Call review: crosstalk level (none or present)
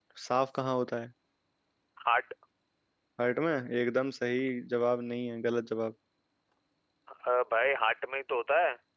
none